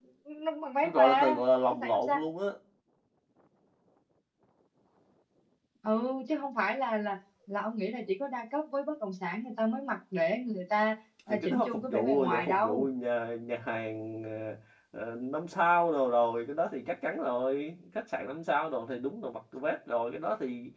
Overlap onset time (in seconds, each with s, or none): 0.8 s